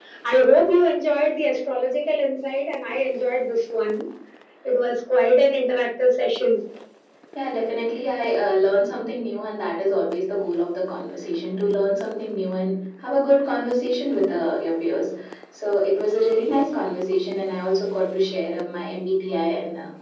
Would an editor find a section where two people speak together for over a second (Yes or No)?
No